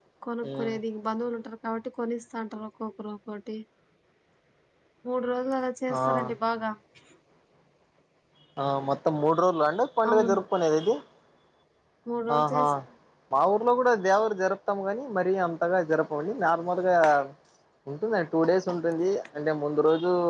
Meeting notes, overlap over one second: none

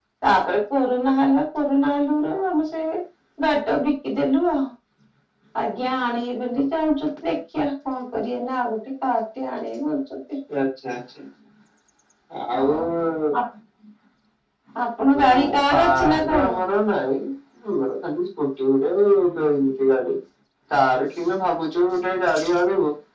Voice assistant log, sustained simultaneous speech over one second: present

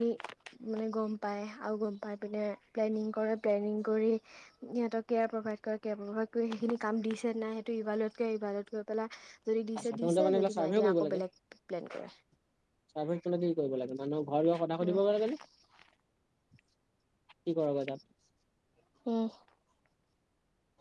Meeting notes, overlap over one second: present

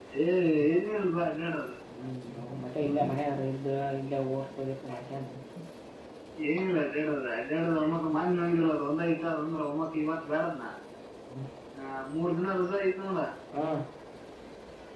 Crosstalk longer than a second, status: none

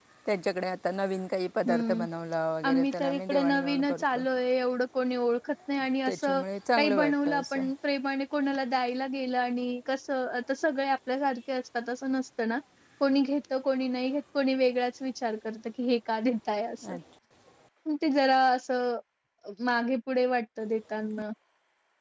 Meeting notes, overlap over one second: present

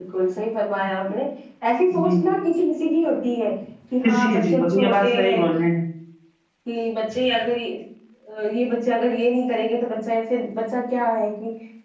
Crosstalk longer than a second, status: present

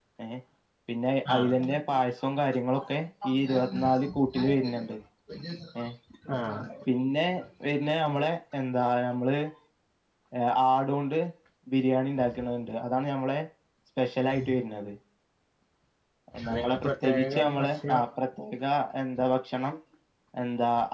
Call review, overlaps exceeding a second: present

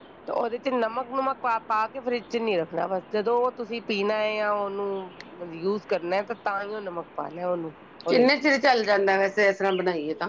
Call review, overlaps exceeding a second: none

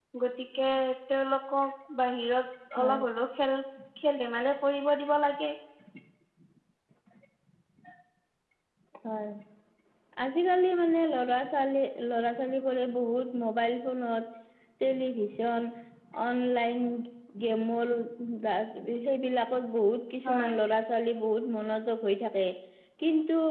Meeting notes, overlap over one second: none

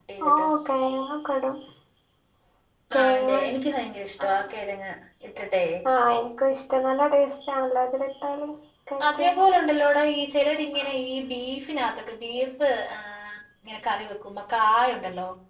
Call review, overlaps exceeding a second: none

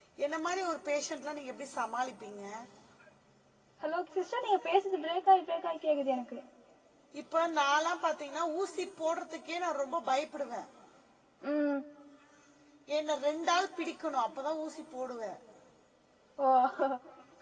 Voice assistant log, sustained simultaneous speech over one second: none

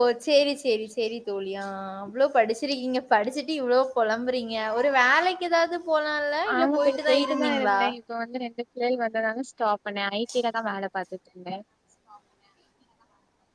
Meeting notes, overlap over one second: present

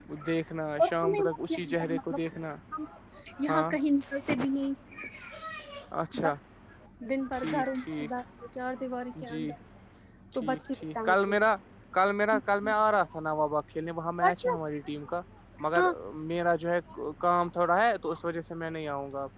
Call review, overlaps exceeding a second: present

